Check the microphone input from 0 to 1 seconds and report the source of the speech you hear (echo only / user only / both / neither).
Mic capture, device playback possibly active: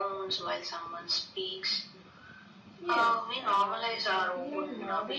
echo only